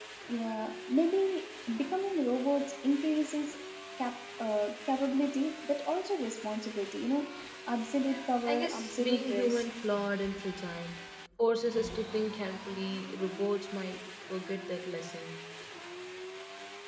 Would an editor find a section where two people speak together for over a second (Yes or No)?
Yes